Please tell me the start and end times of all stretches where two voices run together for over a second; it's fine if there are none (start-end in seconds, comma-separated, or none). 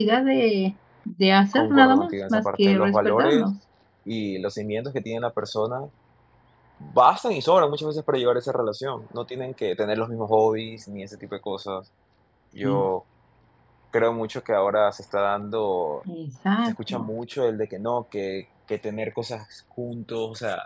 1.5-3.5